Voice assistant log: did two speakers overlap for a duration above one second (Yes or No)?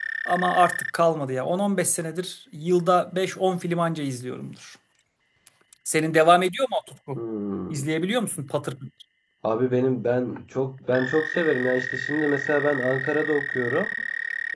No